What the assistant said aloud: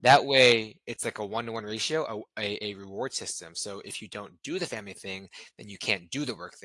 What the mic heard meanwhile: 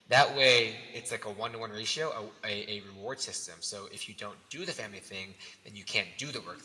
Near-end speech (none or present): none